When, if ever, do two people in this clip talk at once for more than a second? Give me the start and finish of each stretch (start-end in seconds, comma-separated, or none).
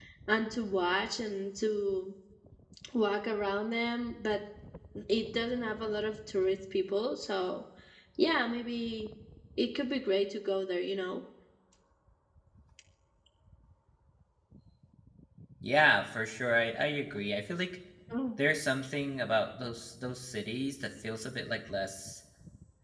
none